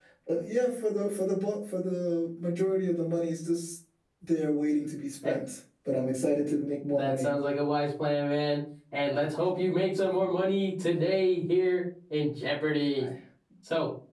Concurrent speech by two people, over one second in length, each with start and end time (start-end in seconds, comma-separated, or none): none